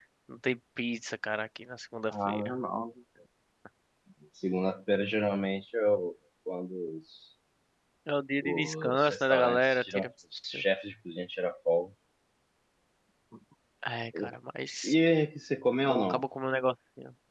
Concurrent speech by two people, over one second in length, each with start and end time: 8.4-10.1

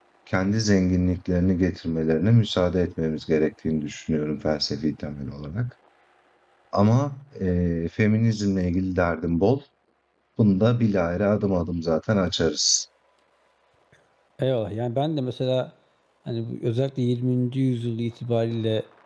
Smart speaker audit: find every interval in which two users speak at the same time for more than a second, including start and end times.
none

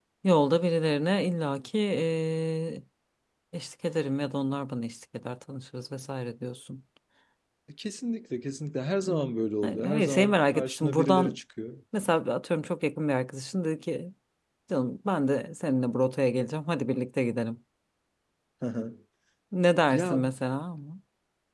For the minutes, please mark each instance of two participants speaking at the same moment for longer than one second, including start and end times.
9.6-11.4

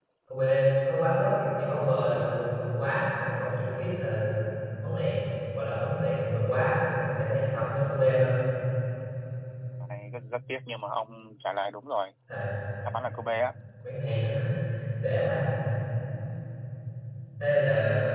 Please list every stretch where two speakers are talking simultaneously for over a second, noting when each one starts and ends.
none

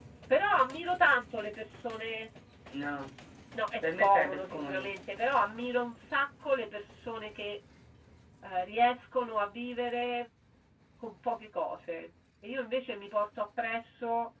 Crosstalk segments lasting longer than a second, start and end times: 3.8-5.1

